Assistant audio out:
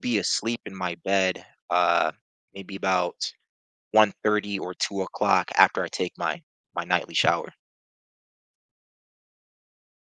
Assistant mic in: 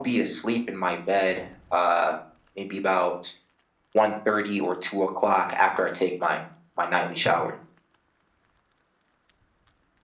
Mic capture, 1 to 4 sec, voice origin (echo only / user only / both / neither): echo only